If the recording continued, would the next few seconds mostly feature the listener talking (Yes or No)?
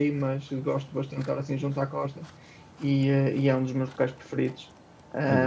Yes